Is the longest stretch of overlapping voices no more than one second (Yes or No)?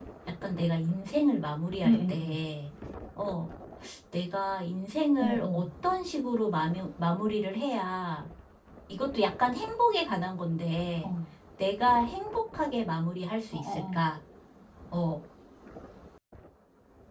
Yes